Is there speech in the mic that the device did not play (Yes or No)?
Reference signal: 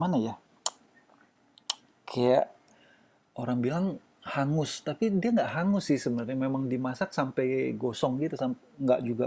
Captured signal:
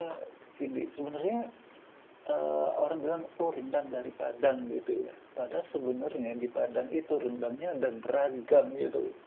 Yes